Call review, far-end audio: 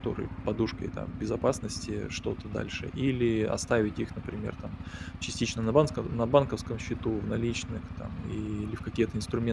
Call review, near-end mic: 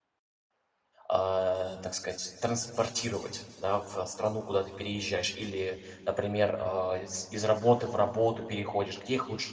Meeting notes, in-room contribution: present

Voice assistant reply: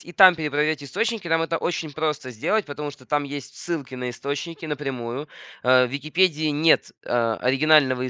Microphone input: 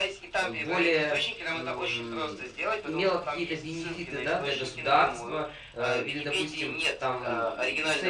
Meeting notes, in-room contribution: present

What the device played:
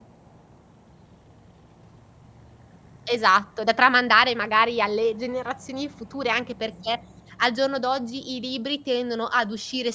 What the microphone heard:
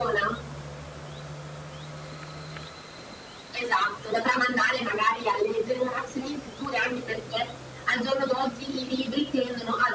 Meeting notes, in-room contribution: none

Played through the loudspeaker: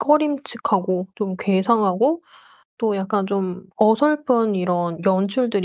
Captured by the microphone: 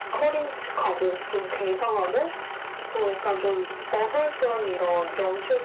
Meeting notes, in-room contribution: none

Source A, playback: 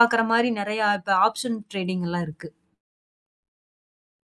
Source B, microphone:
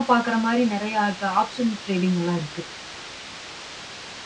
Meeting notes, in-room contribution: none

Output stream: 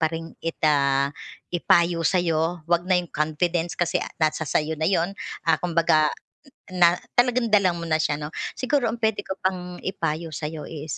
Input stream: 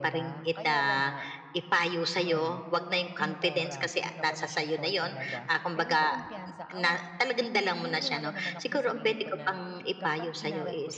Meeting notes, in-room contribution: present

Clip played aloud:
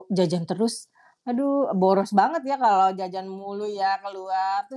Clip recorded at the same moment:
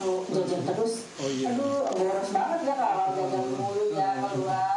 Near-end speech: present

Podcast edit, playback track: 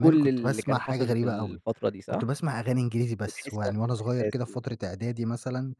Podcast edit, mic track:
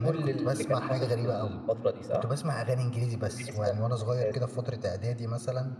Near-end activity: none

